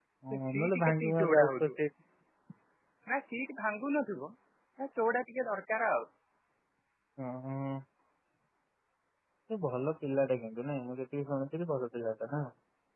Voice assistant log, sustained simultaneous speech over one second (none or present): present